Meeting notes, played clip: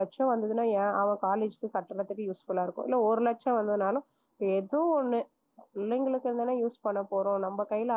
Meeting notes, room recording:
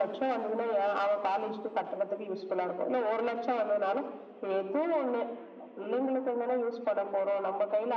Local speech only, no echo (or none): none